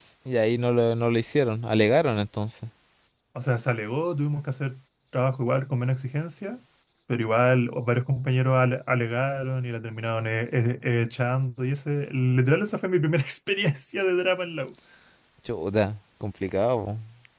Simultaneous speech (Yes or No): No